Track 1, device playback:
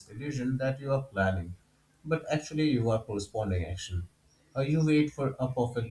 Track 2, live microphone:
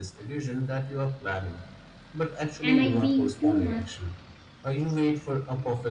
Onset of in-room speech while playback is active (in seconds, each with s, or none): 2.6 s